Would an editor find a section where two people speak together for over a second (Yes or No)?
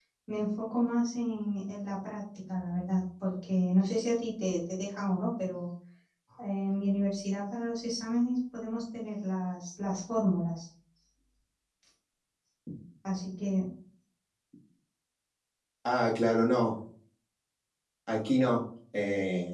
No